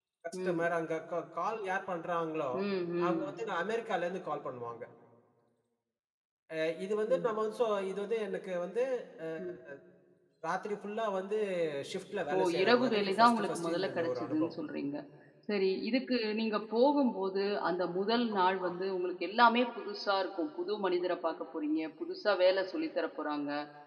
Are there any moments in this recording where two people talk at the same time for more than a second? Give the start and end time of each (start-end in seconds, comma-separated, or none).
12.4-14.6